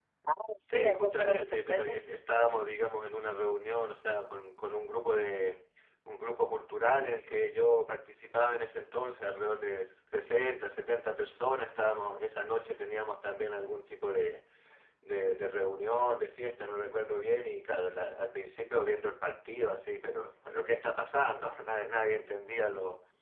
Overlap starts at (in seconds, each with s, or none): 0.7 s